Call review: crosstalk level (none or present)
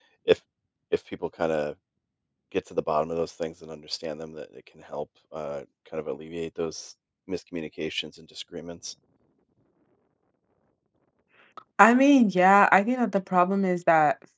none